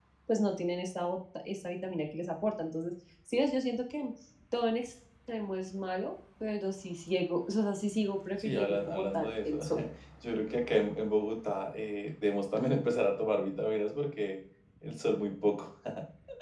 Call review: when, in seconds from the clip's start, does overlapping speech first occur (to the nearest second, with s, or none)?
8 s